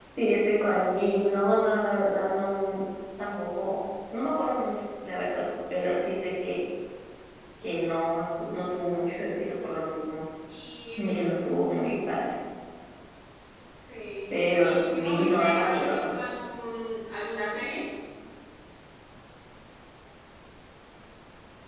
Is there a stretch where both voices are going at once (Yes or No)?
Yes